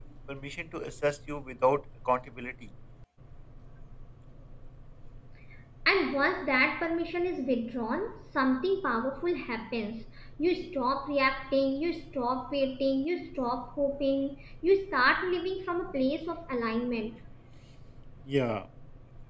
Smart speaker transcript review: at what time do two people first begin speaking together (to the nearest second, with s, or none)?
none